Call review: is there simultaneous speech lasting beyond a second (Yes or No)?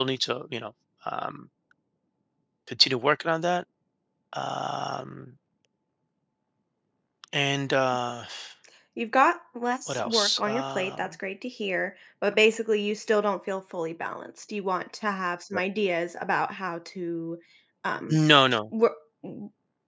Yes